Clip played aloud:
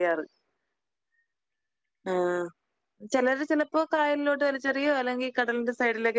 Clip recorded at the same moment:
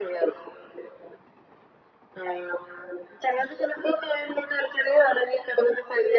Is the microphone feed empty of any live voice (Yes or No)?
Yes